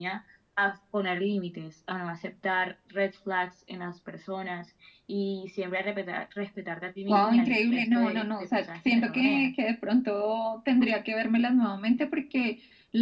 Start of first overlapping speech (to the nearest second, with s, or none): 7 s